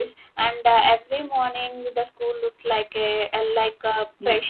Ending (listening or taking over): taking over